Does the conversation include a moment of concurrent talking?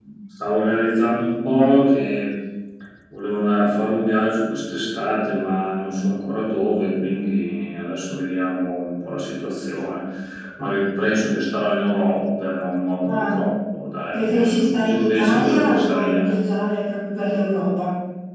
Yes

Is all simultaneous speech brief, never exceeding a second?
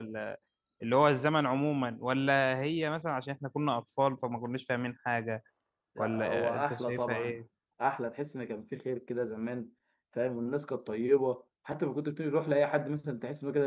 No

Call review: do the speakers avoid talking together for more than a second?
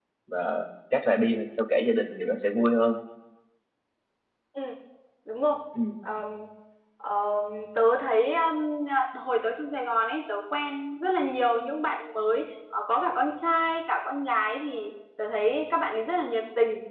Yes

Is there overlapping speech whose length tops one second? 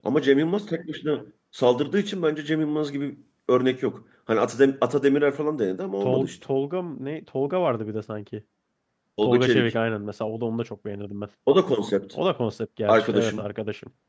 No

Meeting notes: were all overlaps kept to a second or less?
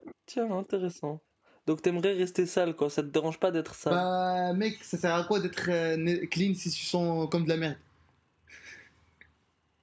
Yes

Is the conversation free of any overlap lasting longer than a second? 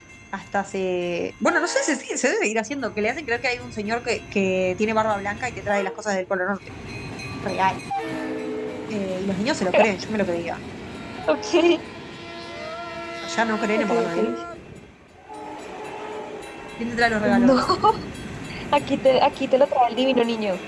Yes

